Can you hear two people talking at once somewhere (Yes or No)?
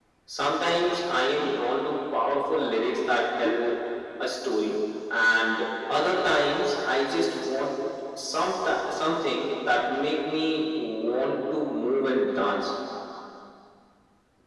No